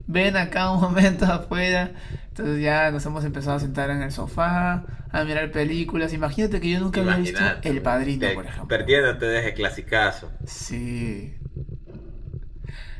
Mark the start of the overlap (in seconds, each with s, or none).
6.9 s